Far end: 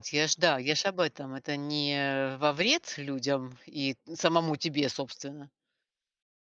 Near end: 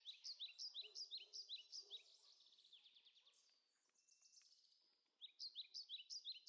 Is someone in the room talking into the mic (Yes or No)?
No